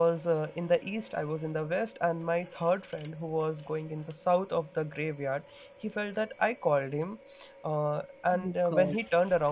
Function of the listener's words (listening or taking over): listening